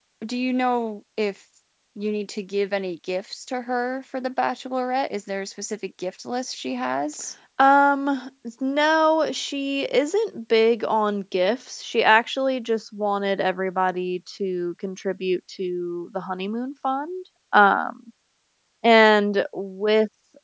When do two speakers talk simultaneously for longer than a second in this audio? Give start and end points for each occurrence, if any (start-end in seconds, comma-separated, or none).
none